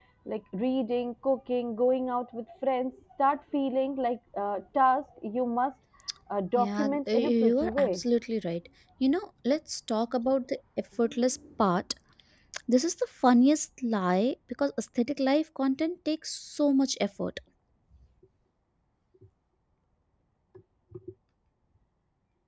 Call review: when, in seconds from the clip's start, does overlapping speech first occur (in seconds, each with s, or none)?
6.6 s